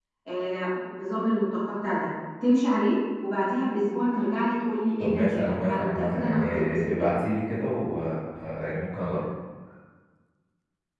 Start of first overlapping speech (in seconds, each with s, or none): 5.0 s